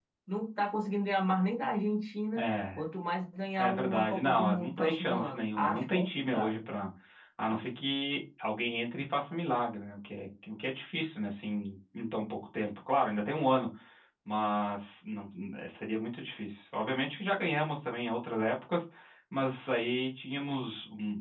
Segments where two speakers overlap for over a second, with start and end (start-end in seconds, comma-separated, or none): 3.6-6.6